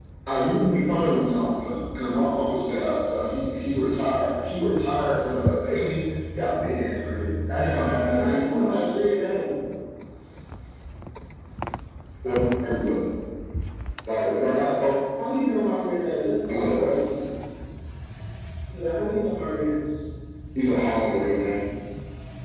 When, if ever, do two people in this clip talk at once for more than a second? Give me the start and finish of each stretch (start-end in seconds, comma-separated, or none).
7.7-9.2